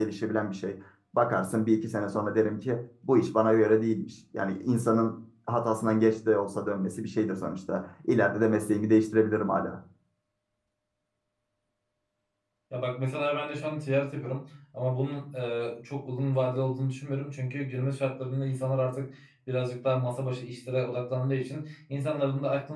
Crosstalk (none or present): none